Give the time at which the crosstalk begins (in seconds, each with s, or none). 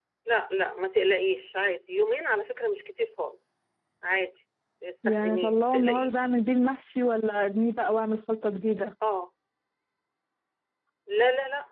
5.0 s